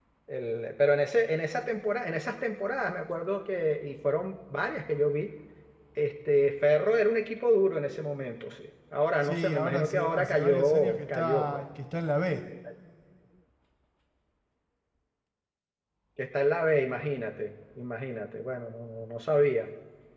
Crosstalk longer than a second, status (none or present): present